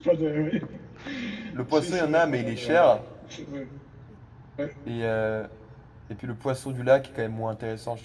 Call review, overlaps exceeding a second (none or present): present